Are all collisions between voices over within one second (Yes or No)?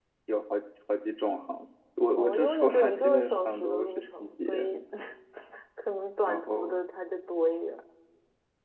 No